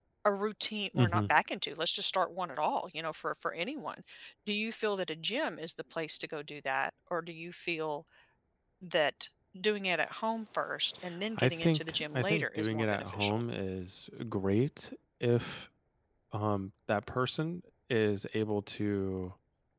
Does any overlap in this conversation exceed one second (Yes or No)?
Yes